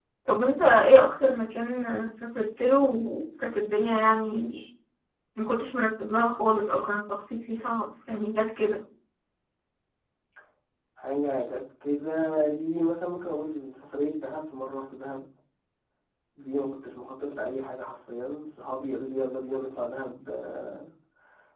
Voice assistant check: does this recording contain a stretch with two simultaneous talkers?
No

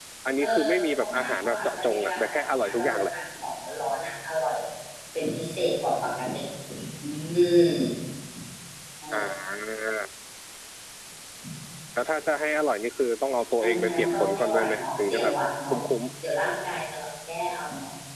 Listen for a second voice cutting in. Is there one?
Yes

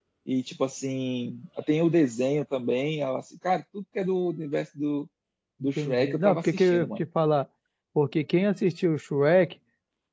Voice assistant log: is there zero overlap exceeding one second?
No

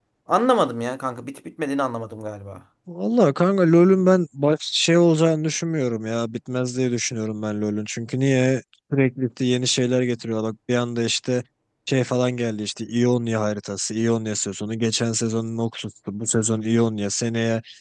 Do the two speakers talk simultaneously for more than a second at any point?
No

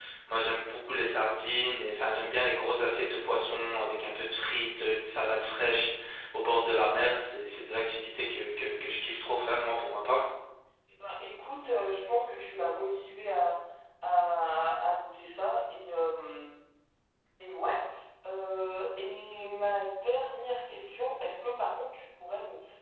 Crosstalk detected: No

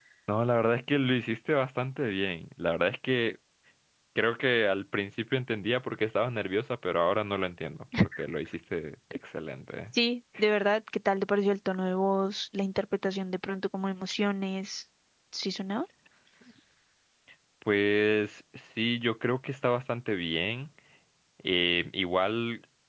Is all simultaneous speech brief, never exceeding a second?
Yes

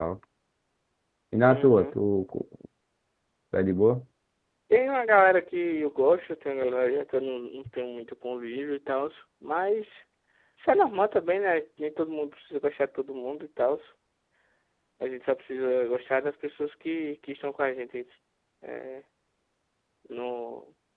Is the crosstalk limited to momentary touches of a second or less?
Yes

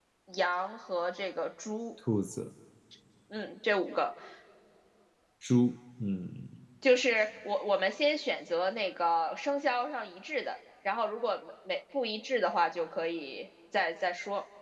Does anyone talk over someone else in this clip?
No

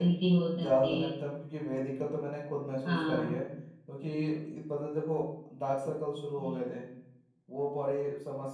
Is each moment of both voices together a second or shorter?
Yes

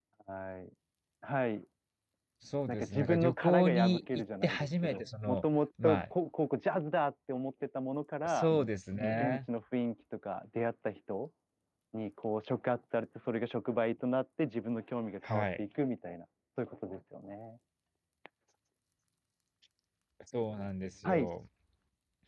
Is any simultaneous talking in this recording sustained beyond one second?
Yes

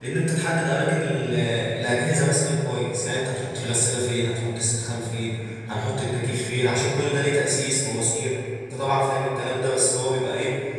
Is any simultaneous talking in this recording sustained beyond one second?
No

